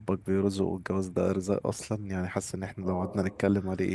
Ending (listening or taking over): listening